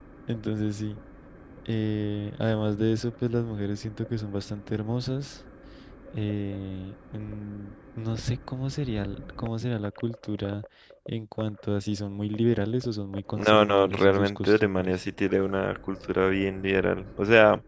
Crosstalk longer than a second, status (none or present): present